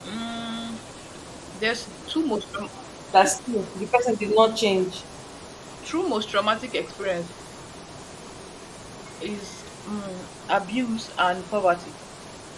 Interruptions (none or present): none